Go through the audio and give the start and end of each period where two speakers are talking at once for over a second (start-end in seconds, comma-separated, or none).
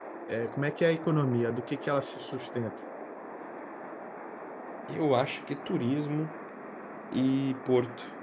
none